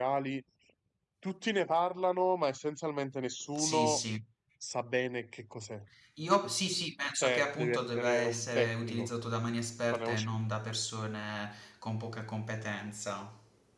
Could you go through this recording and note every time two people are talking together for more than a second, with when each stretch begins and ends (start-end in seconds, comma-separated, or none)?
7.2-9.1